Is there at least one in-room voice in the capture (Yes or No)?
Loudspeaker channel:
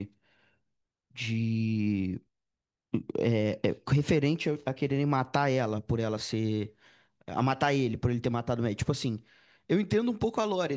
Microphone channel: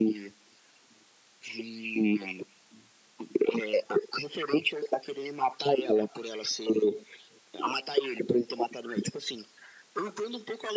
No